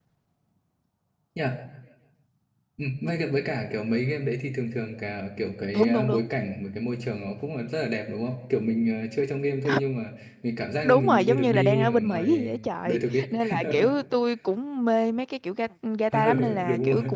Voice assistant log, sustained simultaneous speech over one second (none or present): present